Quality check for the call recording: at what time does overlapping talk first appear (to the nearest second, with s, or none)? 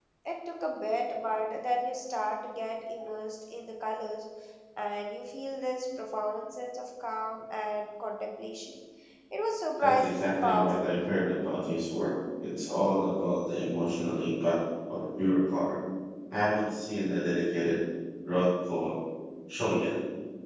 10 s